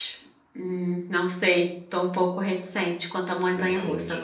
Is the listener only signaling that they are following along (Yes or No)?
No